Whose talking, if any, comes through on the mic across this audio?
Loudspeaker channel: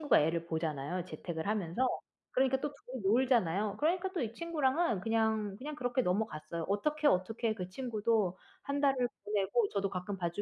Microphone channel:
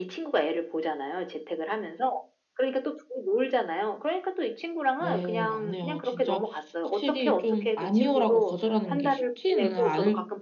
both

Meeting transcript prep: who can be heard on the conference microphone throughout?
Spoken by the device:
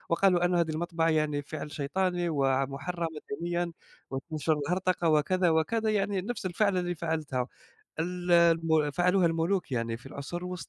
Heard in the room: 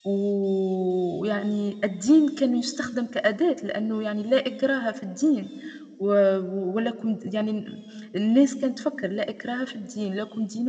user only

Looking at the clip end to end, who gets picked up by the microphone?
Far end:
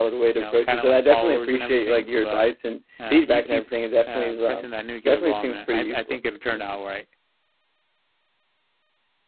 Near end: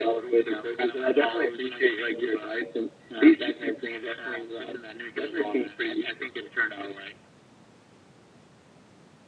echo only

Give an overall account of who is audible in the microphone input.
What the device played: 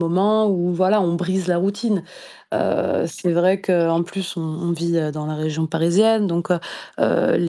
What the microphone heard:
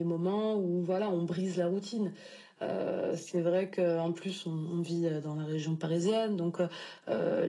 echo only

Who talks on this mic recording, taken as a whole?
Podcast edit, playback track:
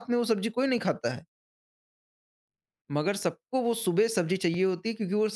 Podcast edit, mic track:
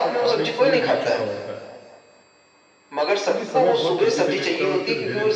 both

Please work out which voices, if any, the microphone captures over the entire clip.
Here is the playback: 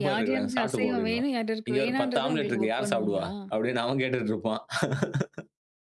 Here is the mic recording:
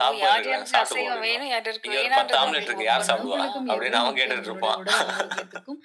both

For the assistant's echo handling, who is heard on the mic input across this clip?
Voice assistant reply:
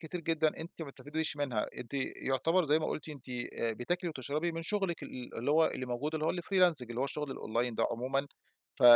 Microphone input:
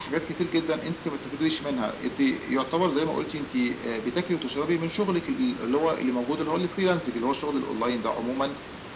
echo only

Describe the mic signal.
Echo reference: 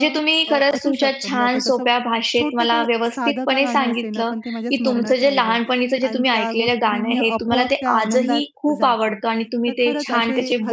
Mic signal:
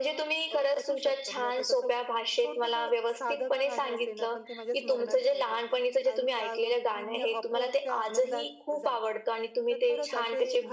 echo only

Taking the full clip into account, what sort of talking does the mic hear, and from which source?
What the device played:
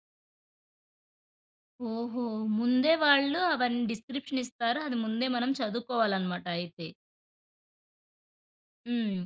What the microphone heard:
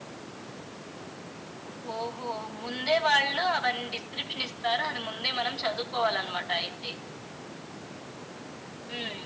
echo only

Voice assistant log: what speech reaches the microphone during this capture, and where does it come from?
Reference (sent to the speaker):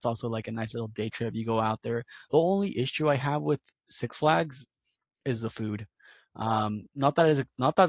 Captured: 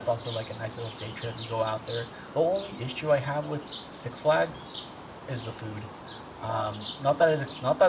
echo only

